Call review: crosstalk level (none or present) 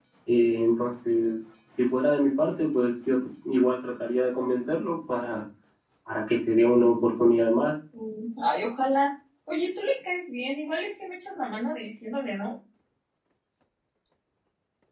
none